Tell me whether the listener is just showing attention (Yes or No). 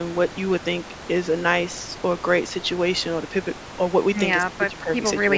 No